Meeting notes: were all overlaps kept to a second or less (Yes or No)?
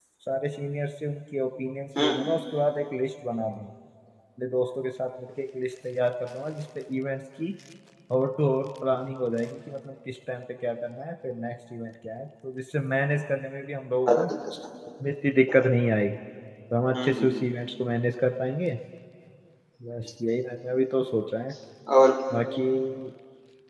Yes